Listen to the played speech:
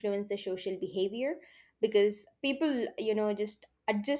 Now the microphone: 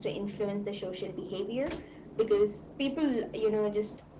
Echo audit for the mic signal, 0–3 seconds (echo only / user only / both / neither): echo only